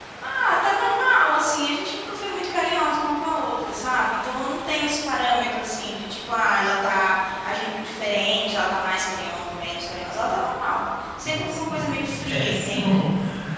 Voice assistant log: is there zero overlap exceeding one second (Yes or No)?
No